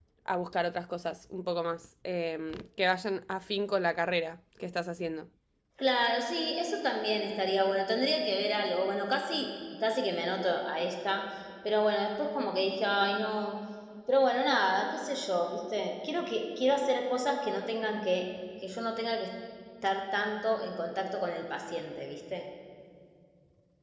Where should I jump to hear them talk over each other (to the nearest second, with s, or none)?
none